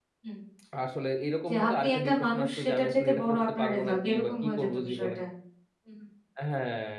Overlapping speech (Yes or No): Yes